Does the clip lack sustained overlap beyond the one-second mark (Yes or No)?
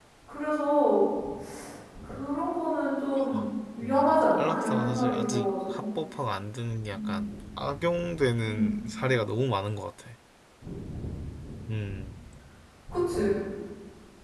No